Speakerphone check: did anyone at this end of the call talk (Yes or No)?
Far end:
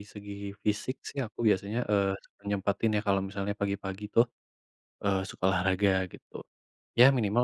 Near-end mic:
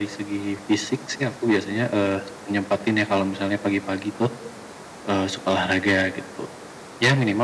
No